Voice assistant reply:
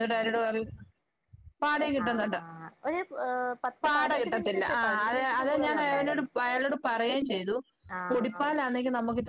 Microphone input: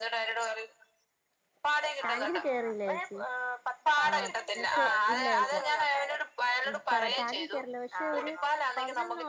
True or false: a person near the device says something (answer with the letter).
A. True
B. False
A